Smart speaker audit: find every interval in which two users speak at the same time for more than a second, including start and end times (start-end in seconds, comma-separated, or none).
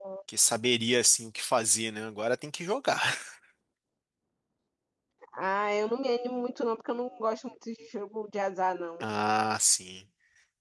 none